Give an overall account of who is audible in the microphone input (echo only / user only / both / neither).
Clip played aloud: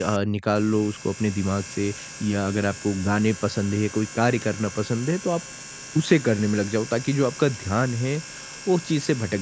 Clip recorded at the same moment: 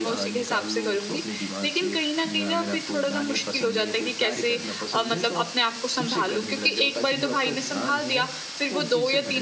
both